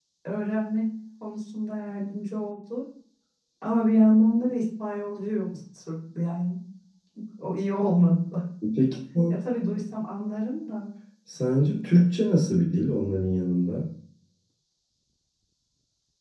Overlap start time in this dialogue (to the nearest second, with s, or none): none